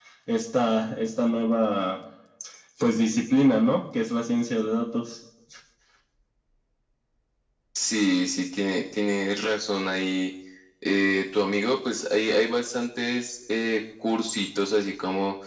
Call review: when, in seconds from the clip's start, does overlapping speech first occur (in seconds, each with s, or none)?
none